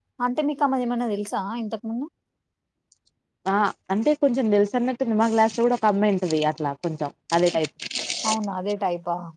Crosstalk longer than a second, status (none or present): none